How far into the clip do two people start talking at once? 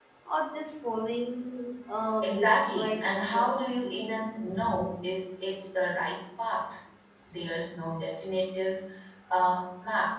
2.2 s

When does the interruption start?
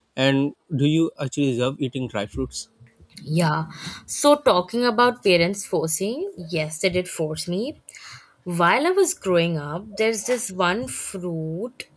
none

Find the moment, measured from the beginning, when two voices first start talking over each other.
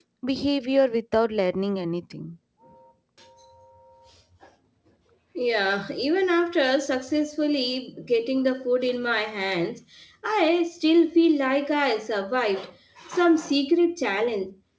none

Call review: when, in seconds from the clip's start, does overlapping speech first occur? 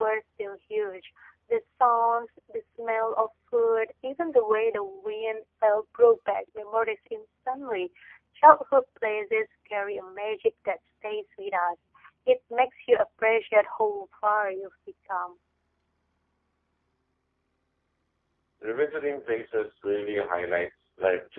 none

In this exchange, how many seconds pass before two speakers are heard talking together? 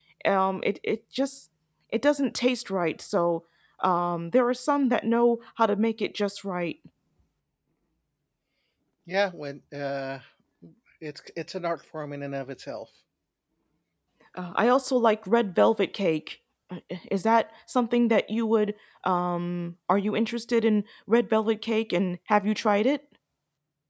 none

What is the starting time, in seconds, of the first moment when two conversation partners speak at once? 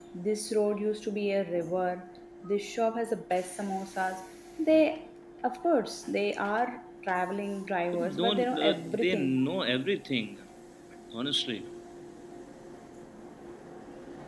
7.9 s

